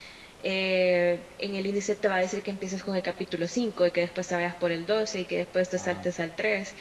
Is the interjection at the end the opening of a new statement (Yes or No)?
No